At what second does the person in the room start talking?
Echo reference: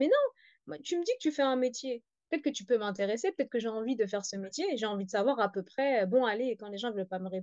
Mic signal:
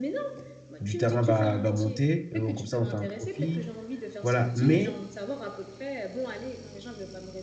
0.8 s

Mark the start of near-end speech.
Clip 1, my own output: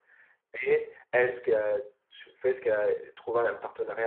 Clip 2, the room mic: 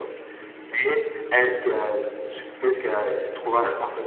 none

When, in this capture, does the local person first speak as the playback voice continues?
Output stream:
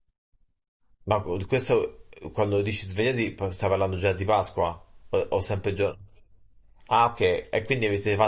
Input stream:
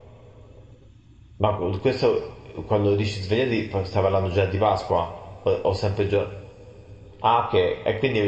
none

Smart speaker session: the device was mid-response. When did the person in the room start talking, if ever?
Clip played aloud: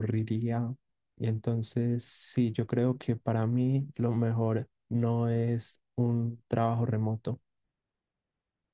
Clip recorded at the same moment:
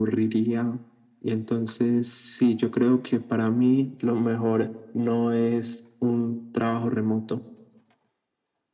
none

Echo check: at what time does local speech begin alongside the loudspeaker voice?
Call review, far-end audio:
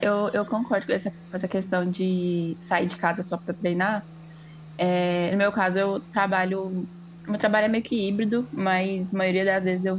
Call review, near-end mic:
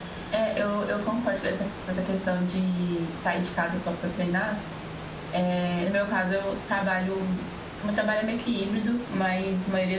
none

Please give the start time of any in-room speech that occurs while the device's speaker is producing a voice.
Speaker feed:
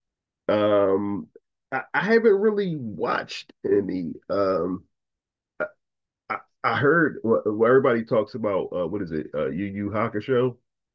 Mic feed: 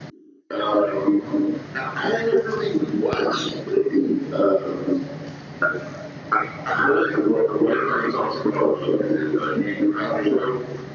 none

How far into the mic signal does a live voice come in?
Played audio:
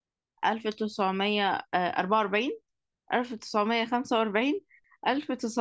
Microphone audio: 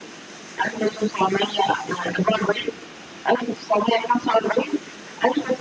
none

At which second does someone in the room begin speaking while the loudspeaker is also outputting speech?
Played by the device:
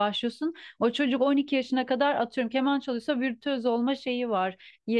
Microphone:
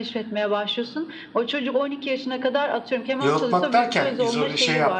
3.2 s

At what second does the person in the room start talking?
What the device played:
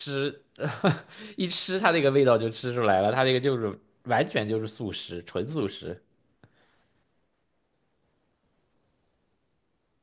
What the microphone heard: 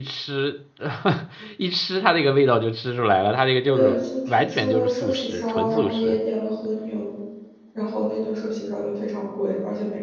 3.6 s

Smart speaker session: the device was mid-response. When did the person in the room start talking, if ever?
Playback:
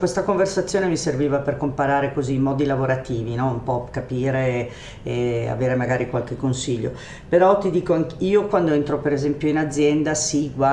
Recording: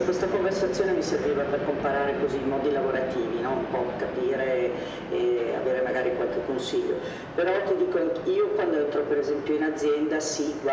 none

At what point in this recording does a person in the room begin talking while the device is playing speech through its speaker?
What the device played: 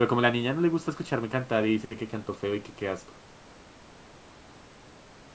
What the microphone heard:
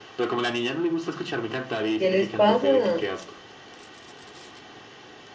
2.0 s

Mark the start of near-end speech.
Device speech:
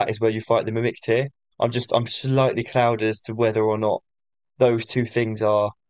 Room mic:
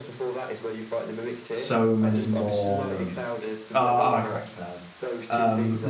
1.5 s

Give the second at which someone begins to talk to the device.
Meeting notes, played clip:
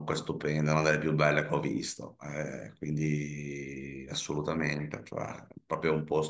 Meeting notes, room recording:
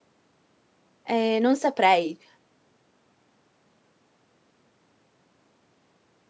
1.0 s

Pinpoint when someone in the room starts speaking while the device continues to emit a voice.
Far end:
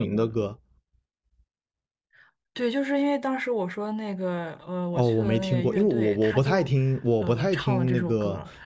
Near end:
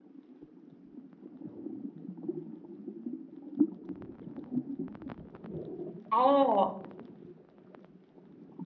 6.1 s

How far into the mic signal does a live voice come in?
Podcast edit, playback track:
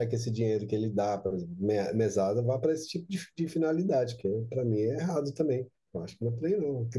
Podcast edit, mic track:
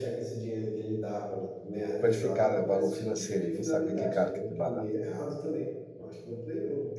2.0 s

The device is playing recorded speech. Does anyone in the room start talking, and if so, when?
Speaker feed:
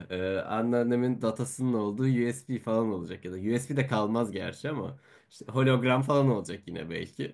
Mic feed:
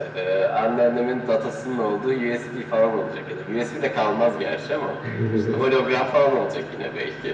5.0 s

